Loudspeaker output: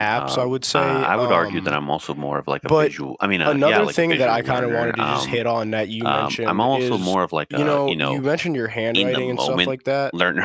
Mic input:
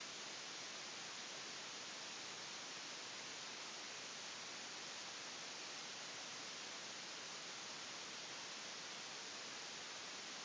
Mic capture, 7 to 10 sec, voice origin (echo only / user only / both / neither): neither